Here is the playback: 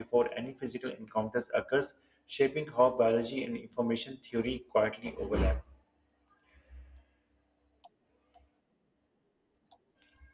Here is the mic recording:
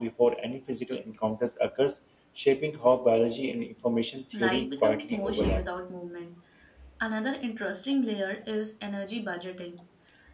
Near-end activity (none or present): present